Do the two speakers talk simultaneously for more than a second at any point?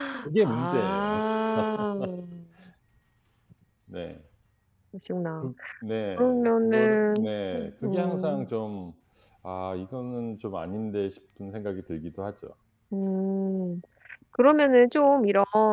Yes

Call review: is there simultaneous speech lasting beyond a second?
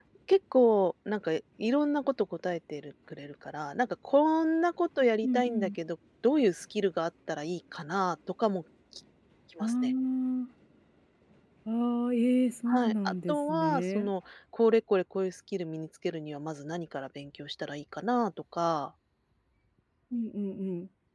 Yes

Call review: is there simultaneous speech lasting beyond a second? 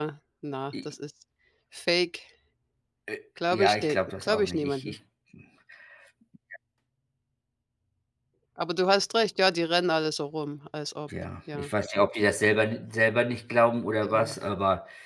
Yes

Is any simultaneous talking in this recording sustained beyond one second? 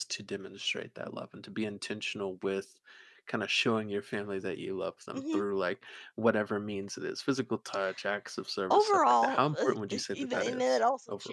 Yes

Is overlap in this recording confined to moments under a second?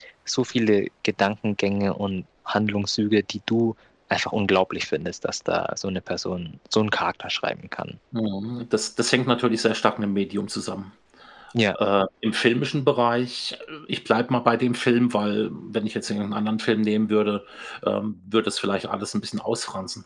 Yes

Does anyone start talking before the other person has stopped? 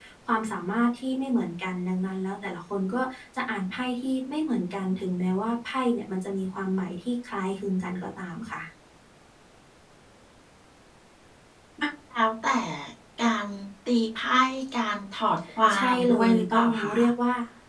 Yes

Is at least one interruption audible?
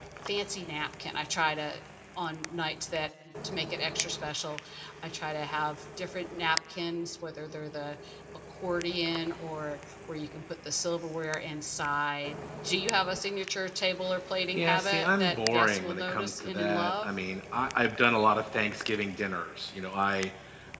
Yes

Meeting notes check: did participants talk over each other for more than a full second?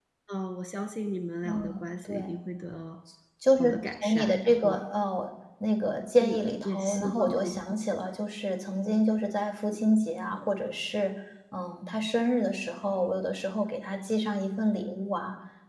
Yes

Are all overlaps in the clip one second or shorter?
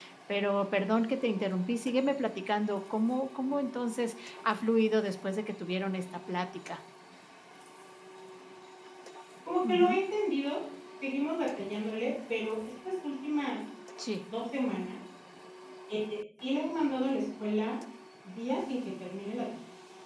Yes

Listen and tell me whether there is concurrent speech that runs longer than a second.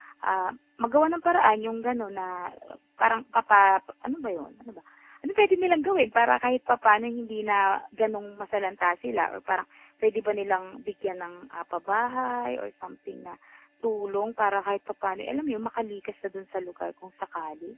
No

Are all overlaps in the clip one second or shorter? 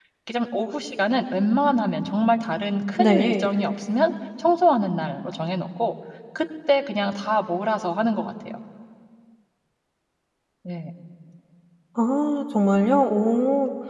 Yes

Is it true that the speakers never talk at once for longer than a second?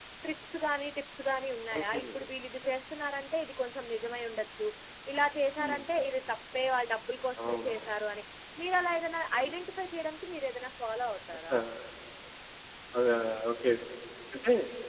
Yes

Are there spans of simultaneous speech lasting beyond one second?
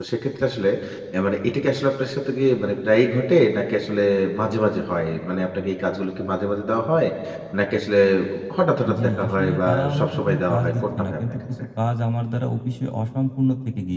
Yes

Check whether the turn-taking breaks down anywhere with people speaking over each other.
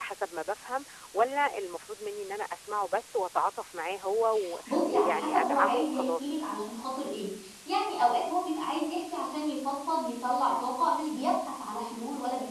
Yes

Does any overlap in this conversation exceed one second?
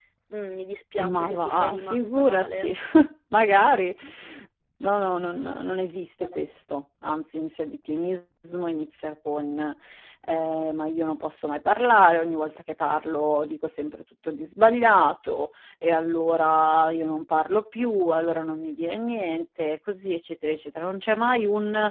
Yes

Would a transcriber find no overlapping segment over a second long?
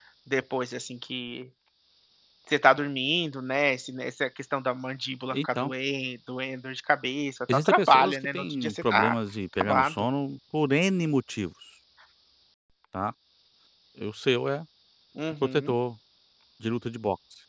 No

